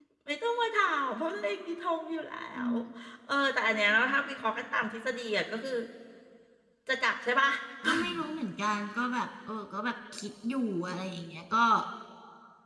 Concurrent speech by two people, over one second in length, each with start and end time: none

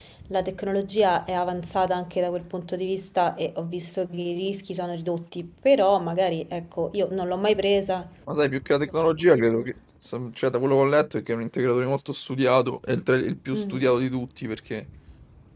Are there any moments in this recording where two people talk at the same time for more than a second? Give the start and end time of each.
none

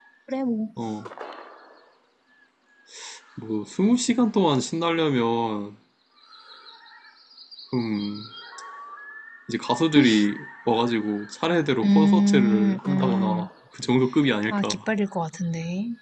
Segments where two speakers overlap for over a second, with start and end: 11.8-13.5

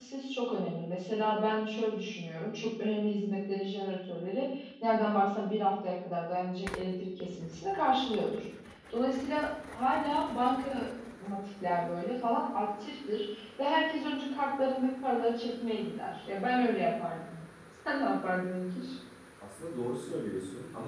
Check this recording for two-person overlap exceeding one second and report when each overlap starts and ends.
none

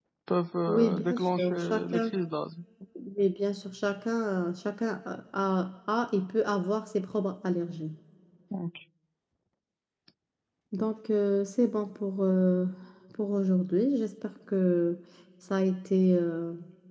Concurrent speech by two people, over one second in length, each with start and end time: 0.7-2.1

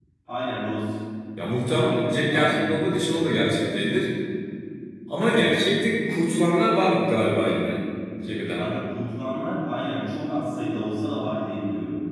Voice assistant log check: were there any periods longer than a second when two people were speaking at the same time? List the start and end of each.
1.7-3.5

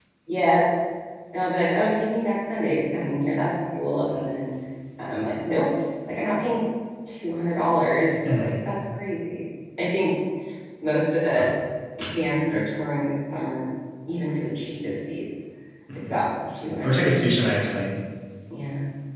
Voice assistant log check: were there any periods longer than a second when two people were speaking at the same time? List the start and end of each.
none

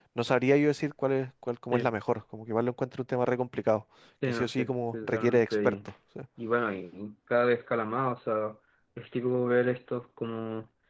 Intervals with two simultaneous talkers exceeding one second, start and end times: 4.2-5.8

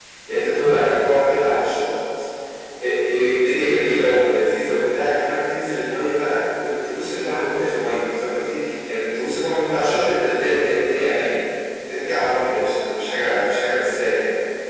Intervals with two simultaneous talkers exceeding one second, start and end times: none

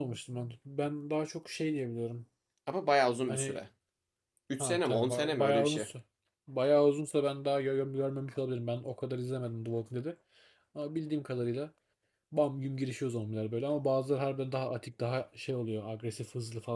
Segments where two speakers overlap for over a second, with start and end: 4.6-5.8

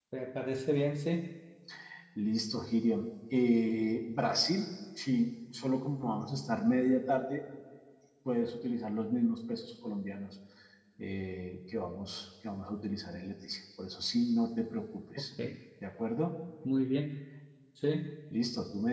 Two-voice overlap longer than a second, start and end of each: none

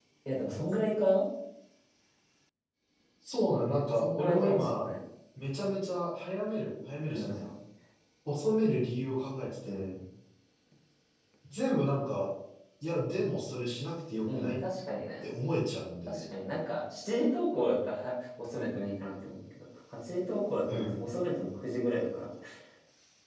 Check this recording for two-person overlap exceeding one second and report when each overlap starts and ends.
3.4-4.9

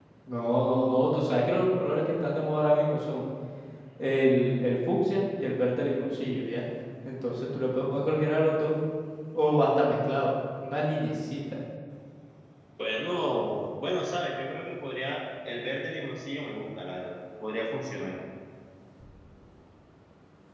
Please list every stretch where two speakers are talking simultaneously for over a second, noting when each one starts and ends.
none

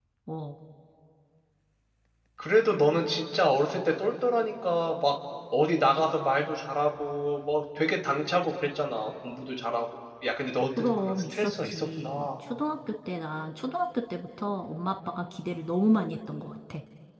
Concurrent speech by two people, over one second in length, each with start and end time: 10.8-12.3

